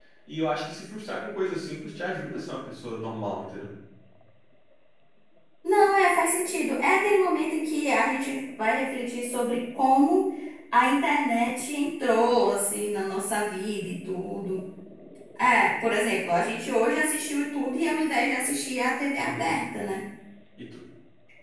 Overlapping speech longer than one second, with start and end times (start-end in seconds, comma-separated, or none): none